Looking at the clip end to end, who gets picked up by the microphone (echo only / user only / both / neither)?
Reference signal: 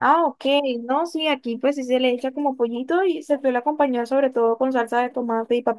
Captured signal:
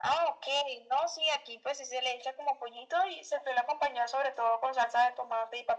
echo only